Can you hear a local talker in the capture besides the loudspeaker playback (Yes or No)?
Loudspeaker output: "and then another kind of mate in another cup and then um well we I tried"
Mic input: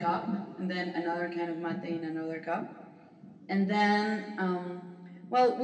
No